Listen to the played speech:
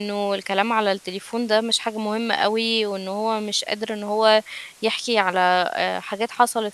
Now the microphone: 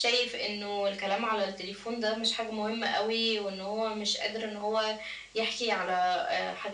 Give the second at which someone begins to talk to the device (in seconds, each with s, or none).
none